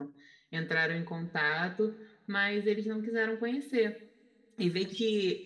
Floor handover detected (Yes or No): No